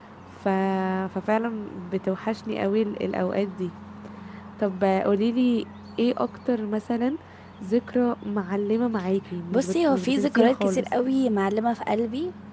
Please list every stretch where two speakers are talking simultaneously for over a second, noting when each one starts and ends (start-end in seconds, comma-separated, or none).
9.5-11.0